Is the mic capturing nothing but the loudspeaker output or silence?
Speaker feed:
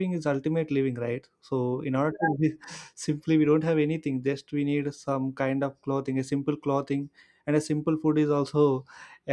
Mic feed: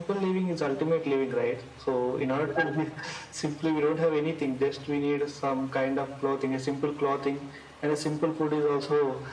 Yes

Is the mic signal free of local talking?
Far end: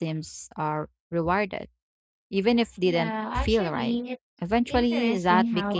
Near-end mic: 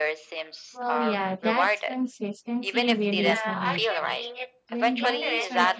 No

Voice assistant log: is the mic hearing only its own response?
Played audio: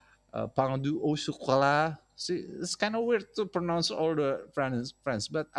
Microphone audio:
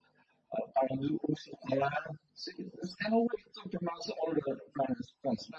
Yes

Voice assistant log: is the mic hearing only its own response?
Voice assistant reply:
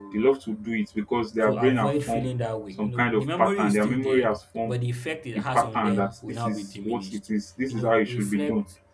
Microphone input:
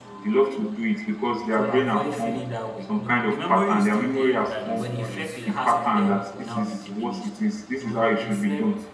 No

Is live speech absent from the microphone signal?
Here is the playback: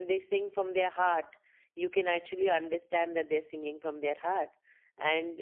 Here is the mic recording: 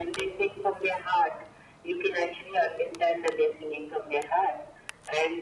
Yes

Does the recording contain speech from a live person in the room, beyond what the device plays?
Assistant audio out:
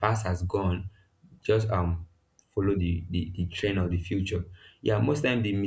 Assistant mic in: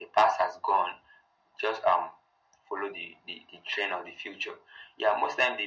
No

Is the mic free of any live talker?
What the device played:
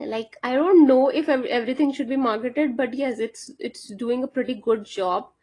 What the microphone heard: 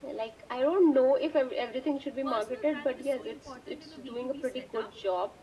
No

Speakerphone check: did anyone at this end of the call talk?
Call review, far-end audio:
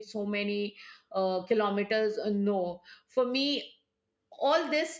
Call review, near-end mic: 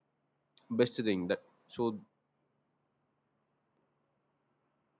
Yes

